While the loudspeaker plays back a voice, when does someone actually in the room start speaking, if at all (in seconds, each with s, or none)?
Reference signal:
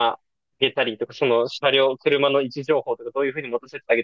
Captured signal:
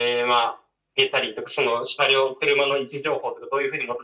none